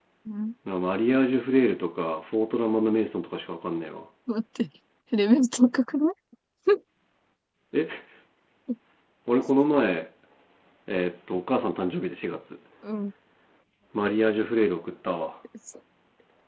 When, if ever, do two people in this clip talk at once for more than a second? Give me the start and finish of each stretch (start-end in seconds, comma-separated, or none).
none